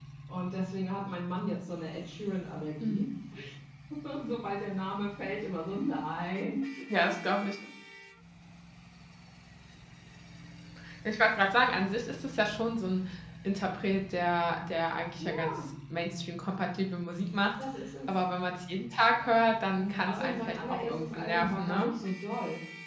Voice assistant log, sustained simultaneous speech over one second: present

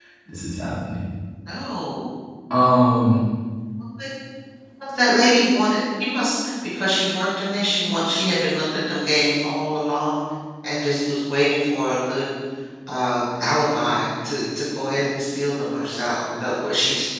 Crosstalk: none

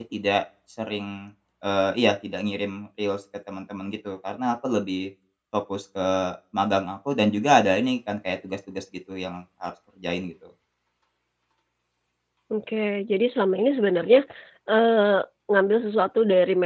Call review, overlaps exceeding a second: none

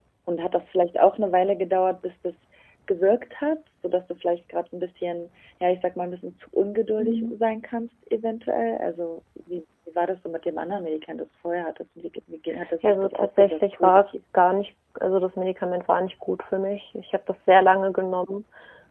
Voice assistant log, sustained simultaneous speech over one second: present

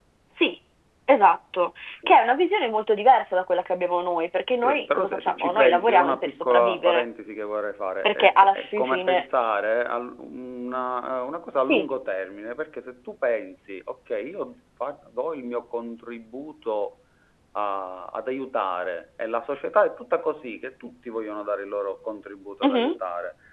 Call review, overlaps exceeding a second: present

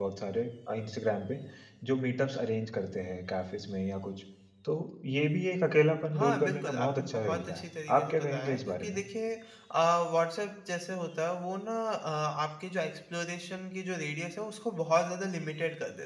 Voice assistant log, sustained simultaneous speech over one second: present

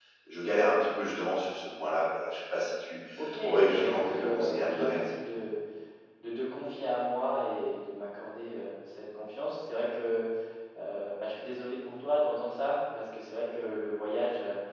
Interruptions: present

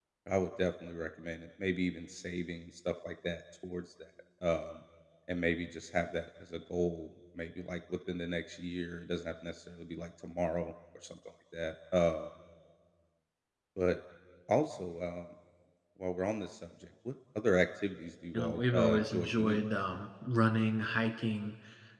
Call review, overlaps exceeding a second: present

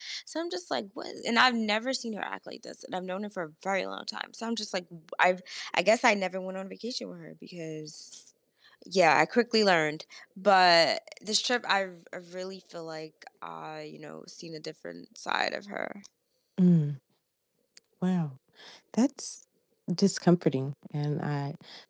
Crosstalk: none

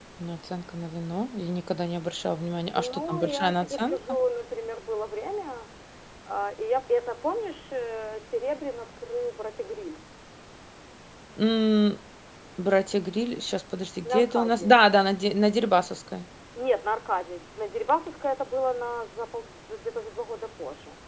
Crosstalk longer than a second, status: present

